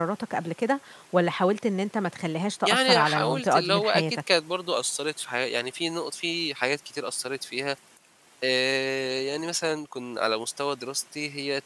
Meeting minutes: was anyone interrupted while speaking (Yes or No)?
Yes